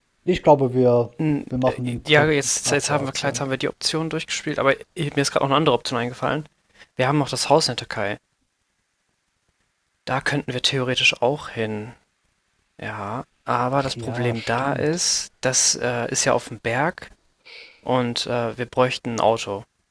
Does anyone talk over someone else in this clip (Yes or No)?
Yes